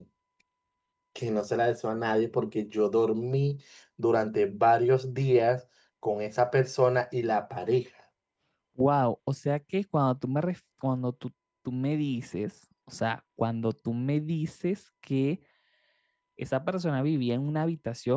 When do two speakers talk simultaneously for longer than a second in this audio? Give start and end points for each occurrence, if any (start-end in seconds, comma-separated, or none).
none